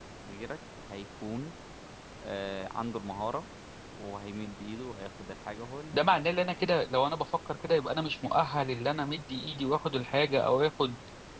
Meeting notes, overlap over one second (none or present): none